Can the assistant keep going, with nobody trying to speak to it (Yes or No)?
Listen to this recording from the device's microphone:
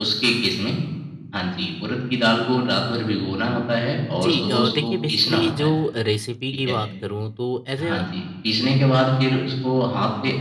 No